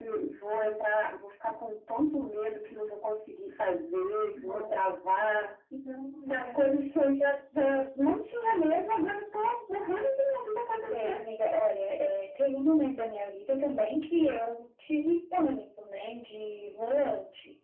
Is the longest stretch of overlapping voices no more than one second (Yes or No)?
Yes